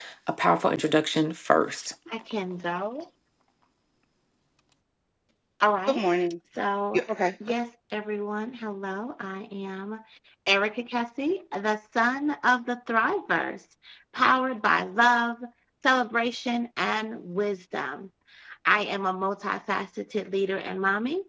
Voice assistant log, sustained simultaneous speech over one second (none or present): none